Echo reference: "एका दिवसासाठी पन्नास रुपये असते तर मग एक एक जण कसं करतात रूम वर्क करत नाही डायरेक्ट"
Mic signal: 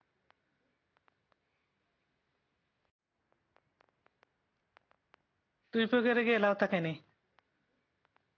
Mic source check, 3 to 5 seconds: neither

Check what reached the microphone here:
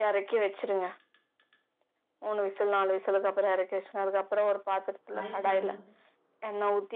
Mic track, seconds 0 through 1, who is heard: echo only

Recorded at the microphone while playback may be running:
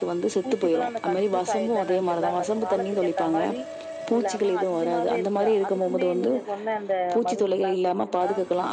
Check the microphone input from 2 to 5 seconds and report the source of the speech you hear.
echo only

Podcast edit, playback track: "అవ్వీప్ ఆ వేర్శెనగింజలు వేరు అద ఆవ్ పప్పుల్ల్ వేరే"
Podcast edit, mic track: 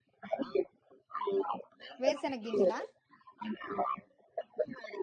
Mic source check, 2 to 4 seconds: both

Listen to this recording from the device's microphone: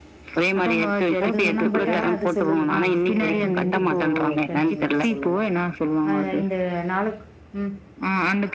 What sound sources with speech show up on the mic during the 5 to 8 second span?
both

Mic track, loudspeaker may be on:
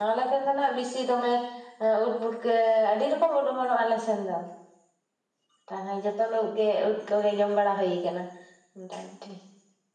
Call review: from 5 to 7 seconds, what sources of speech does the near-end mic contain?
user only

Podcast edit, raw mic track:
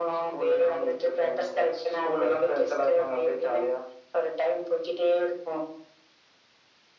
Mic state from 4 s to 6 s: echo only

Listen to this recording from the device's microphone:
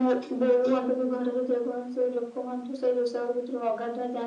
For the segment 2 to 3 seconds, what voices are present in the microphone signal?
echo only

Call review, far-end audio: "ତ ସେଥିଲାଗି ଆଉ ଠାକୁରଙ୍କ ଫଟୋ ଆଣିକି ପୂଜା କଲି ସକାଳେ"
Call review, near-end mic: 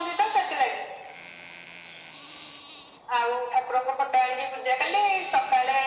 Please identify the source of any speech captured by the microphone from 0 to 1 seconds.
echo only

